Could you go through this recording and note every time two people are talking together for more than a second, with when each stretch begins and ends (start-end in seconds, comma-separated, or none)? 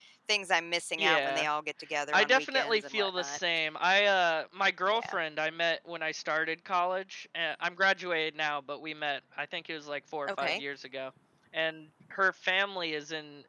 2.1-3.4